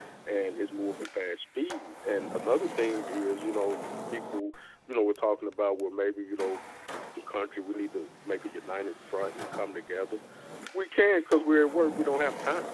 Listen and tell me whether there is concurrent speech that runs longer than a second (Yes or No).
No